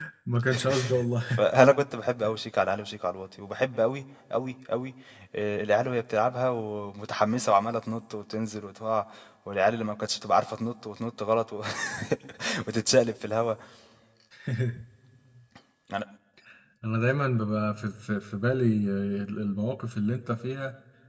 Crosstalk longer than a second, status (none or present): none